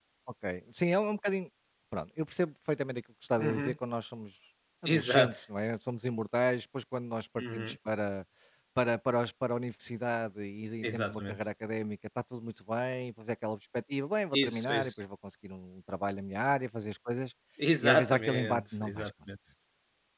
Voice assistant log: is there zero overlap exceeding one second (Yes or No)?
No